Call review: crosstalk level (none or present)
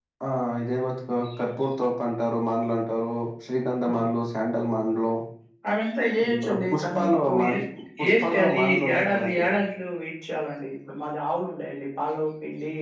present